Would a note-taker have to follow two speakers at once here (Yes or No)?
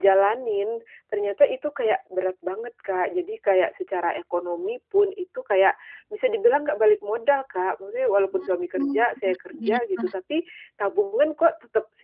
Yes